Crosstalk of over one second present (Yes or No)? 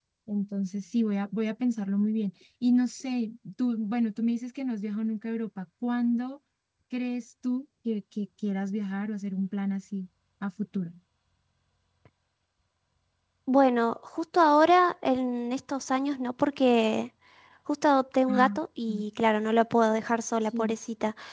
No